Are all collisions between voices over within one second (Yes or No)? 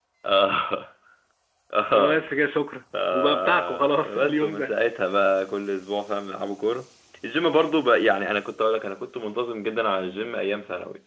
No